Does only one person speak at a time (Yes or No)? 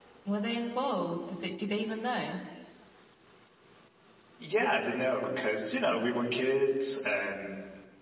Yes